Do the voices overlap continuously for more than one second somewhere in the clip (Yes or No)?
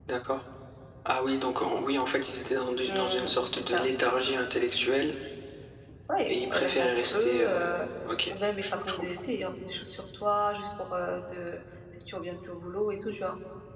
Yes